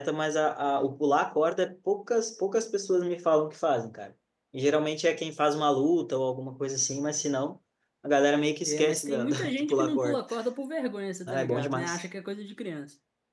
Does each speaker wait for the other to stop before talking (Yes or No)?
No